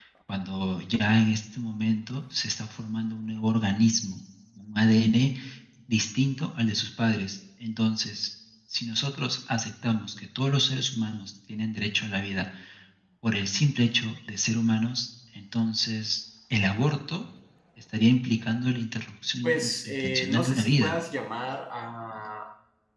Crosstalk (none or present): present